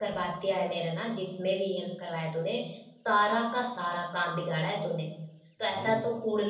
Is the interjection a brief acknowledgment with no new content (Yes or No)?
Yes